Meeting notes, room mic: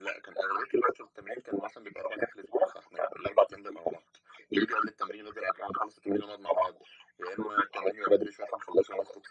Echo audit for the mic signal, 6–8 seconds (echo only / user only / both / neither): echo only